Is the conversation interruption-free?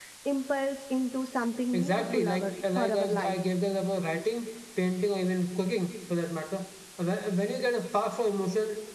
No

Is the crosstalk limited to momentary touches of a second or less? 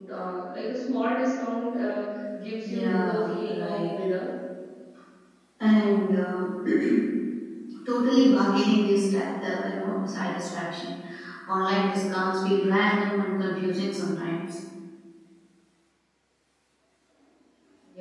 No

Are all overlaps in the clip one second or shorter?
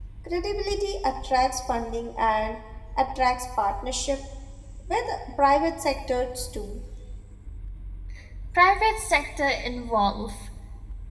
Yes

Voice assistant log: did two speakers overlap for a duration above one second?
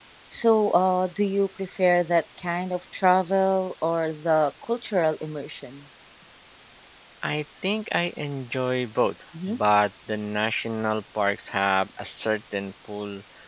No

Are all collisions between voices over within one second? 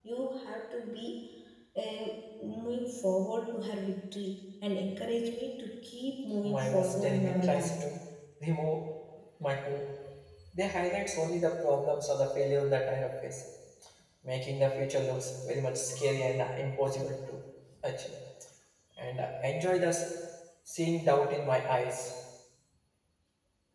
No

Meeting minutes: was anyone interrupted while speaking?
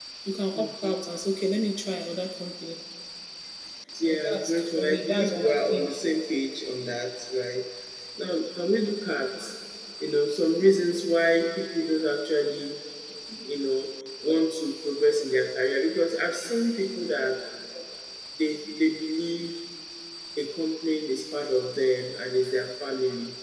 Yes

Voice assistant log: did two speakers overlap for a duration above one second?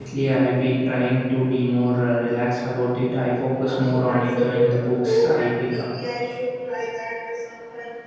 Yes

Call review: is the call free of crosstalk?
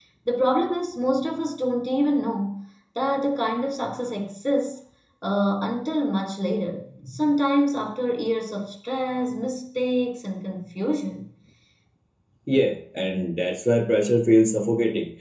Yes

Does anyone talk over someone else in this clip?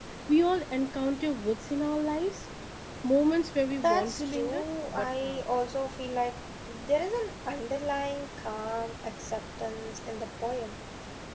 Yes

